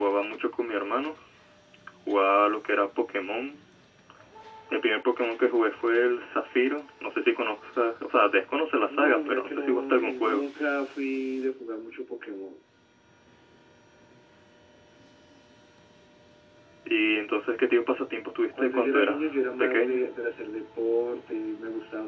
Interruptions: present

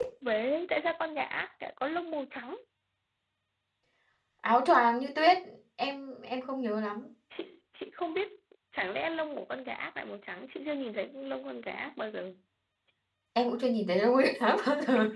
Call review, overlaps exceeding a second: none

